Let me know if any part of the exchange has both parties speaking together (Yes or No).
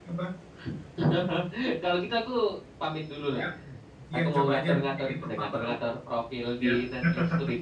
Yes